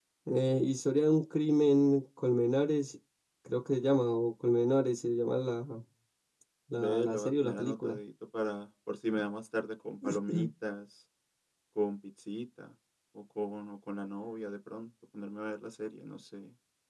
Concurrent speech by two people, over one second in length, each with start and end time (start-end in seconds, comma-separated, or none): 6.8-8.0